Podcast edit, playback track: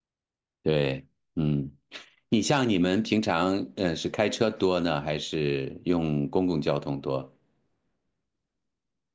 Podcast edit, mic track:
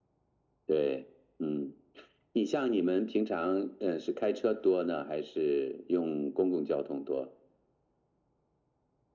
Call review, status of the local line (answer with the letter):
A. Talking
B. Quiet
B